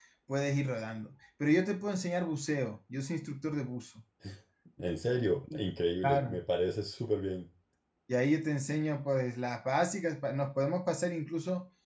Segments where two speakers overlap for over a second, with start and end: none

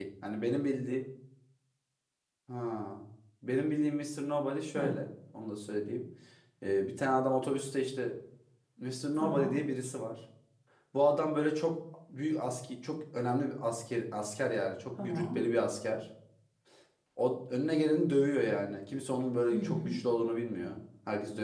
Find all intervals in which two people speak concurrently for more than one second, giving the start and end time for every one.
none

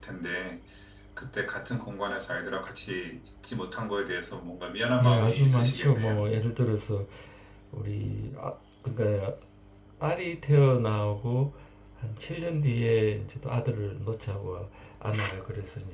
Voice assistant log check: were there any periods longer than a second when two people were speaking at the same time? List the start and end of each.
5.0-6.2

